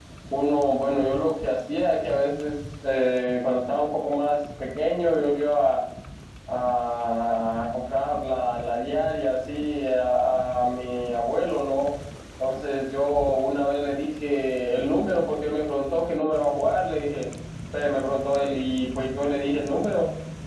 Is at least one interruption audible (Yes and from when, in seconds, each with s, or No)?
No